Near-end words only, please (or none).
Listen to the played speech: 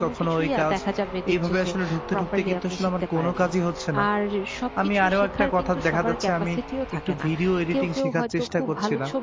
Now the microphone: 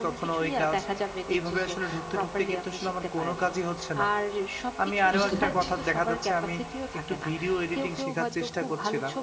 বুঝতে পারছি।